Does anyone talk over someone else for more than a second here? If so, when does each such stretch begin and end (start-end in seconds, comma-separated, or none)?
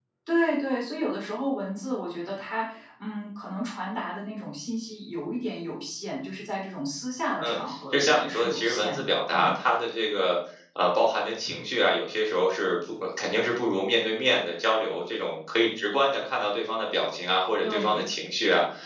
7.5-9.6